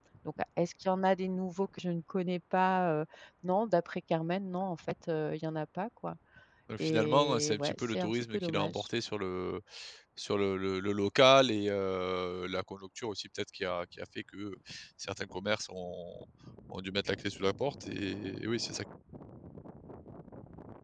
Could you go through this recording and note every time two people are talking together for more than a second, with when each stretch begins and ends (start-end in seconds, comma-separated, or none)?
6.8-8.9